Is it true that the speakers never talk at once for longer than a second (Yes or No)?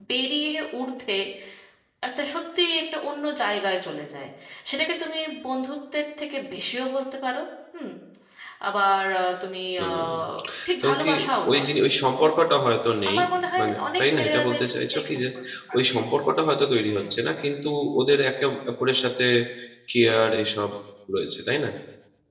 No